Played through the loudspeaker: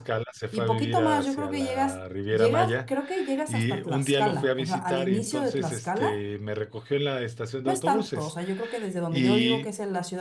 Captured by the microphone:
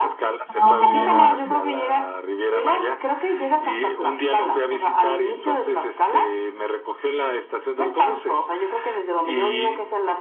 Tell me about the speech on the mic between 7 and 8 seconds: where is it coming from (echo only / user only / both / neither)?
echo only